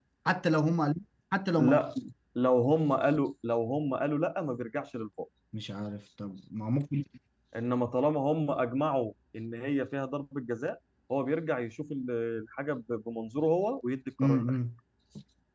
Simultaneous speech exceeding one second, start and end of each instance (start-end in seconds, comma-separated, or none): none